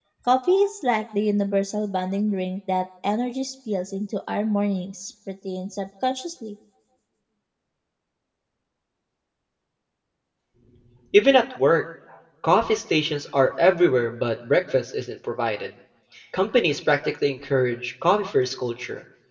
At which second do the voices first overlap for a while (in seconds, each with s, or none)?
none